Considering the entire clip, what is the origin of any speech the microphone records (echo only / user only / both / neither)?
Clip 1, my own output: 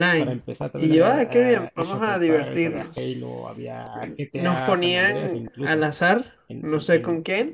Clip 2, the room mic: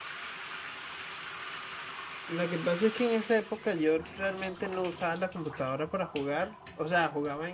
user only